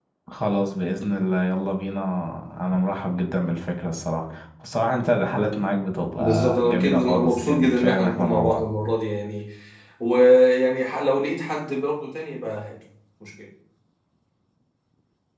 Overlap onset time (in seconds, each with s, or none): 6.2 s